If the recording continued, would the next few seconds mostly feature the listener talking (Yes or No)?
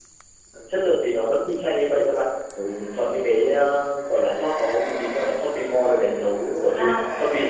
Yes